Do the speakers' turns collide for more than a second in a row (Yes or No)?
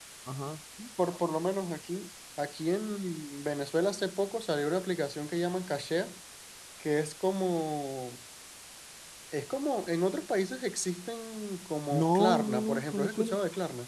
Yes